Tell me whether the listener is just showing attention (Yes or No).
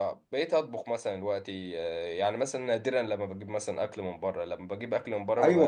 No